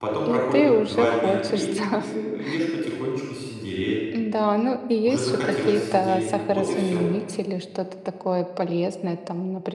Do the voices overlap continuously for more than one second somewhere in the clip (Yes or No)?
Yes